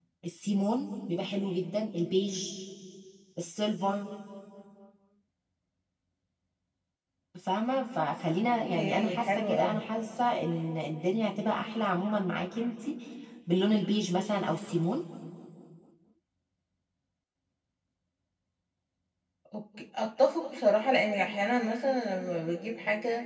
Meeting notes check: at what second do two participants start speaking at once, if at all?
8.4 s

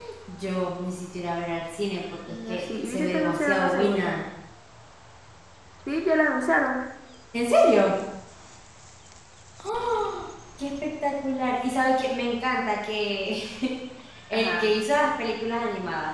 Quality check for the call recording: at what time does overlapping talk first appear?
2.3 s

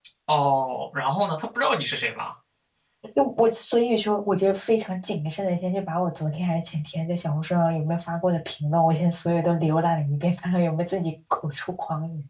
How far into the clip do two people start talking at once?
none

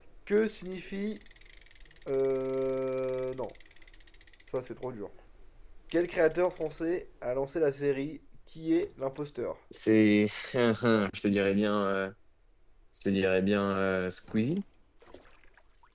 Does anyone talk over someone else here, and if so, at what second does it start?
none

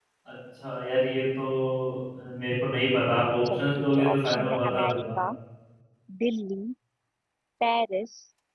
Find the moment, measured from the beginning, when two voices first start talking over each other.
3.5 s

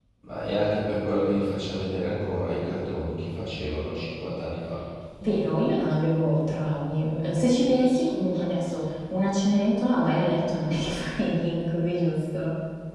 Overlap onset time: none

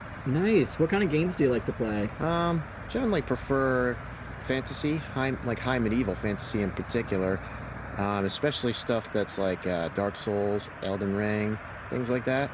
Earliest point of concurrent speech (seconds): none

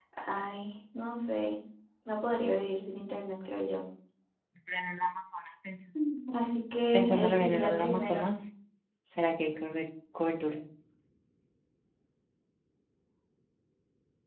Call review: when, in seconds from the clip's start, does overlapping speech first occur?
6.9 s

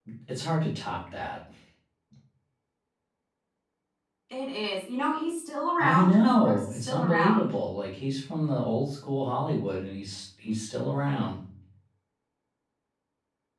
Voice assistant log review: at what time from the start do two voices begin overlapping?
5.8 s

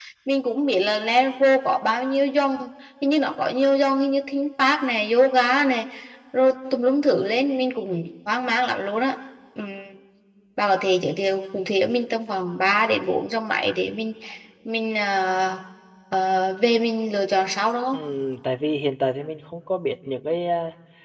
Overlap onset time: none

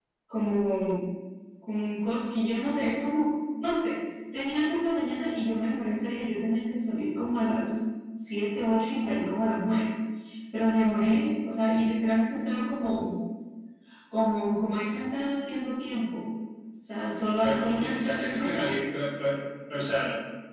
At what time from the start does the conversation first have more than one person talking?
17.4 s

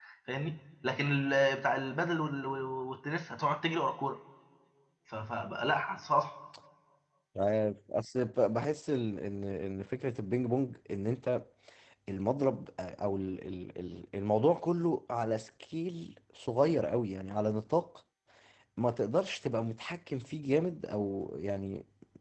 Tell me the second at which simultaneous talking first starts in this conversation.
none

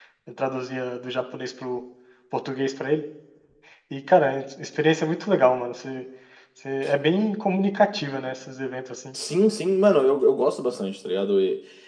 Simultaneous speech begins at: none

